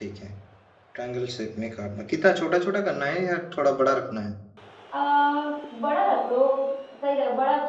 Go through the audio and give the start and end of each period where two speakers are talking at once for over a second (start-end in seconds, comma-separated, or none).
none